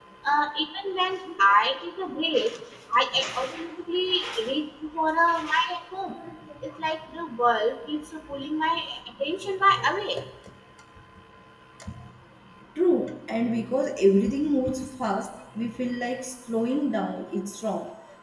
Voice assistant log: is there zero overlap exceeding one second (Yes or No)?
Yes